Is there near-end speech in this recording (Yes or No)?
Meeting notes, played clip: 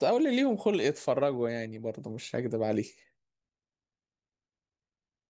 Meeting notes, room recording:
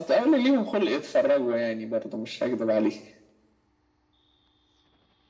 No